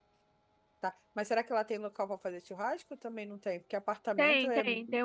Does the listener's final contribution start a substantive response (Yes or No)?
Yes